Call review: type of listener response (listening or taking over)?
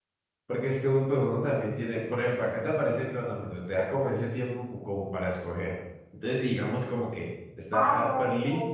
taking over